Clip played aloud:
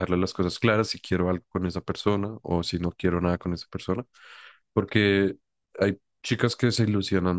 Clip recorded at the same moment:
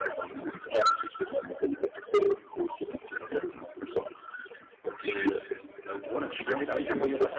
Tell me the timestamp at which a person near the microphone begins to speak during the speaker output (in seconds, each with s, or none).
6.0 s